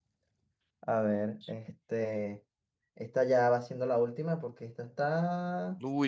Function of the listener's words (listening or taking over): taking over